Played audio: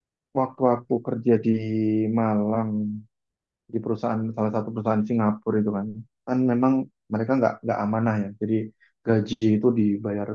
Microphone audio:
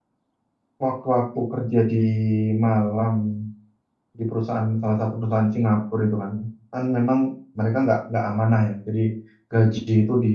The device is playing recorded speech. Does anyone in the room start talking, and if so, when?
none

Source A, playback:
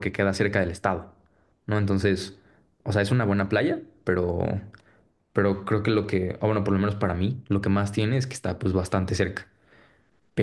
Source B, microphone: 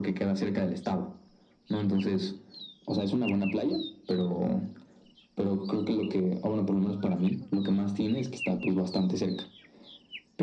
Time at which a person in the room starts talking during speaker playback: none

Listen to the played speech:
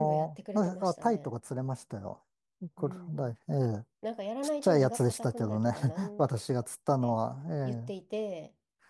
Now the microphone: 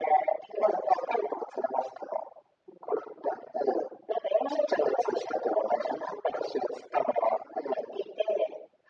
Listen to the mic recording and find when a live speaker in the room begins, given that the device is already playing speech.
none

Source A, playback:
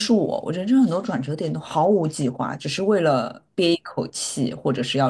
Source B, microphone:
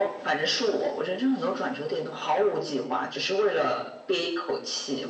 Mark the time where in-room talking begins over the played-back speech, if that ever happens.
none

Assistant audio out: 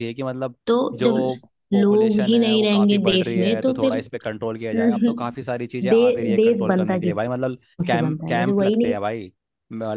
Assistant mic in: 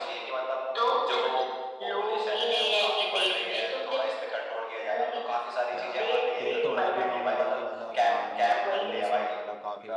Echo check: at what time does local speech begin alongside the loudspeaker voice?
5.7 s

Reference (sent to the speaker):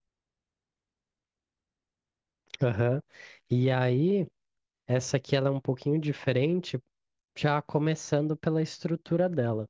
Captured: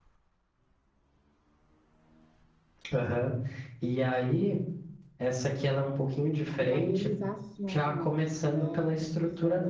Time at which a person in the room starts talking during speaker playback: 6.6 s

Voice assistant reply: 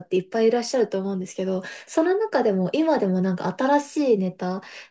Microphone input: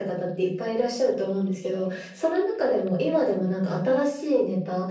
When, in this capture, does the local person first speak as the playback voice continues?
none

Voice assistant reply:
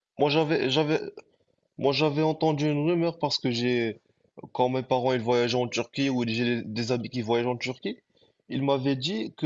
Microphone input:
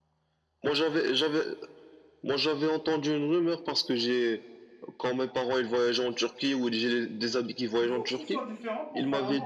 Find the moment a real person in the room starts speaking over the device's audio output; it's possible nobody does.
7.8 s

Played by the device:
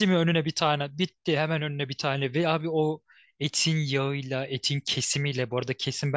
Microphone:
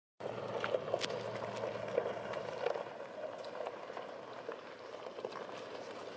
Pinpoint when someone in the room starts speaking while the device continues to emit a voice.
none

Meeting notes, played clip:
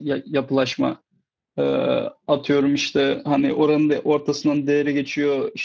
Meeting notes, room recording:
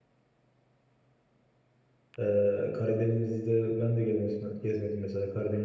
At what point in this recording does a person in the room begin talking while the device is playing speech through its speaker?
2.2 s

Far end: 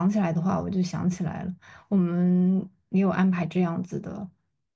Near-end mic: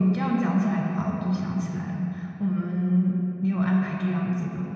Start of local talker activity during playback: none

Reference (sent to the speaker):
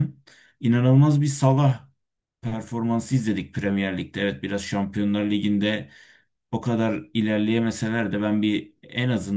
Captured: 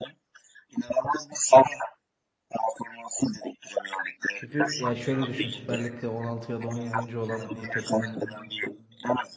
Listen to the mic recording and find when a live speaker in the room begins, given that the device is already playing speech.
4.3 s

